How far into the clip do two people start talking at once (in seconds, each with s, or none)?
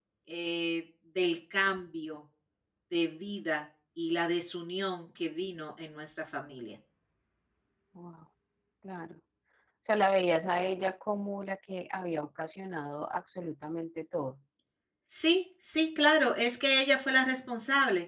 none